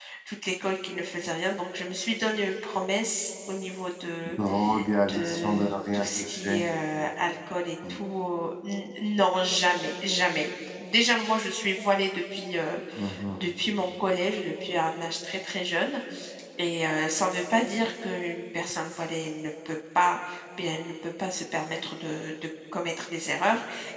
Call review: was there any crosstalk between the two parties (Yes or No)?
Yes